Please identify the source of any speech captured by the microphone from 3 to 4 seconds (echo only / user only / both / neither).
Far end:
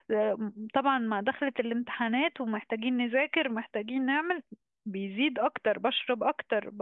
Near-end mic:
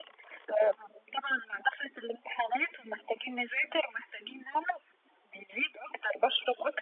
echo only